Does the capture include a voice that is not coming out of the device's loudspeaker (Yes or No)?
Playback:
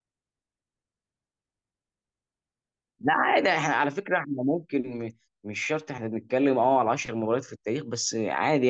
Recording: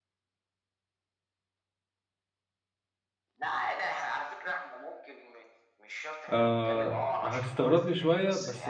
Yes